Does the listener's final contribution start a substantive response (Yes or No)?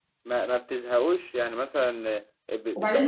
Yes